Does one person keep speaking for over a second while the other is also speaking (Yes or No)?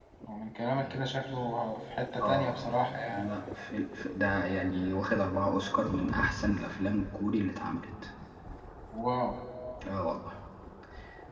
No